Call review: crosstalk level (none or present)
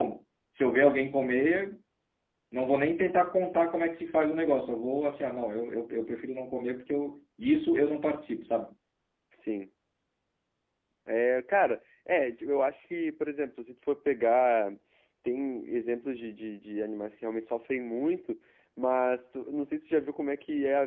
none